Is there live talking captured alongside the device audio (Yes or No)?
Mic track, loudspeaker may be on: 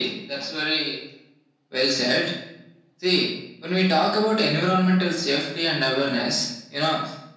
No